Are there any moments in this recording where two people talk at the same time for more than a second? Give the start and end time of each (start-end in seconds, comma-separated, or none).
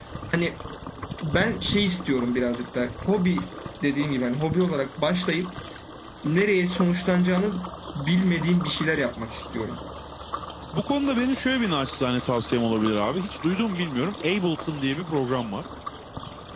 none